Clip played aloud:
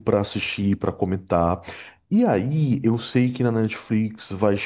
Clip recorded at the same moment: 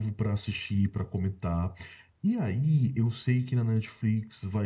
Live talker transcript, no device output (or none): none